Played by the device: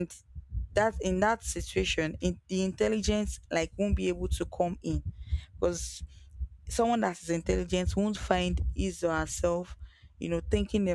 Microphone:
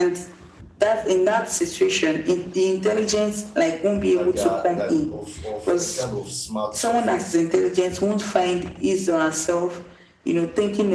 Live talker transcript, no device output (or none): that they are that of of a kind of smart suffering